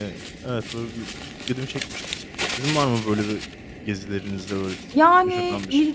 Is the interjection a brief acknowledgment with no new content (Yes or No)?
No